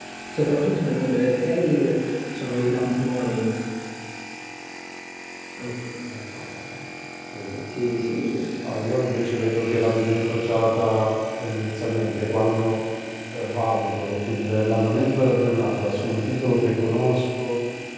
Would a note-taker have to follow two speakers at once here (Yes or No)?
No